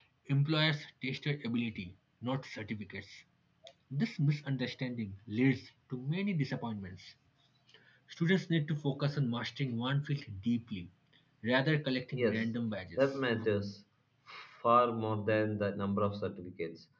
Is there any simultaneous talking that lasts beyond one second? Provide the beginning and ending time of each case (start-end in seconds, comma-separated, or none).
none